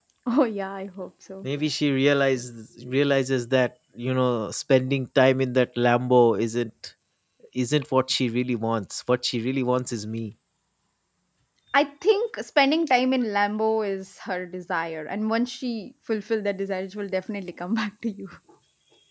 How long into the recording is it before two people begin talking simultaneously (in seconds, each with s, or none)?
none